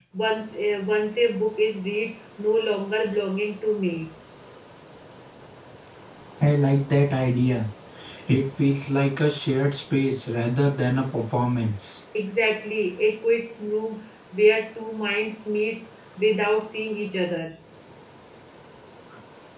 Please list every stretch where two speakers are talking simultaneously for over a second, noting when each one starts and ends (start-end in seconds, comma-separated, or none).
none